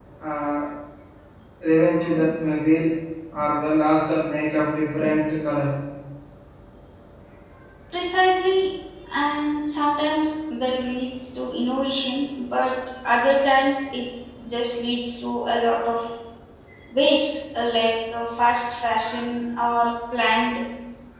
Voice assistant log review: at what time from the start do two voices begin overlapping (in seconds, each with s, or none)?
none